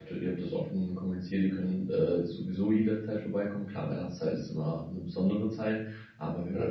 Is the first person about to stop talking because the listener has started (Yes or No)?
No